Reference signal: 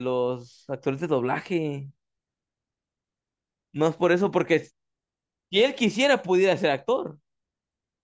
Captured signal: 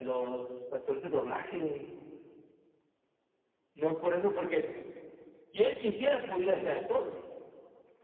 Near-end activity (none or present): none